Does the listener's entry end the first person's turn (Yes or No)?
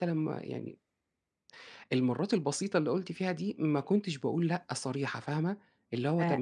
Yes